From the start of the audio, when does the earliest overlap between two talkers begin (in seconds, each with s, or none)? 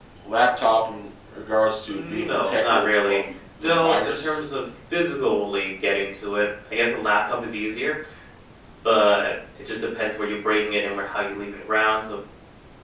1.9 s